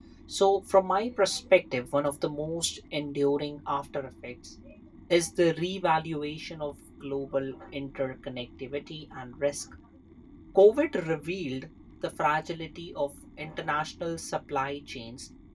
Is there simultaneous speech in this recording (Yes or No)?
No